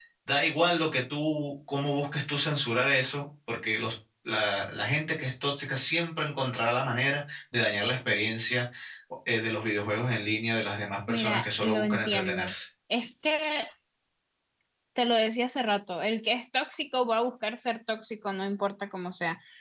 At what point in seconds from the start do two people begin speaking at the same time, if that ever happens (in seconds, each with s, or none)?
11.1 s